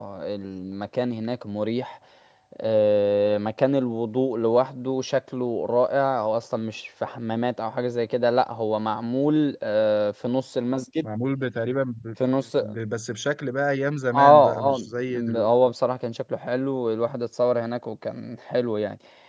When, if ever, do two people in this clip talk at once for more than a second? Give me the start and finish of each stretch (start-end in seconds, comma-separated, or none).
14.2-15.5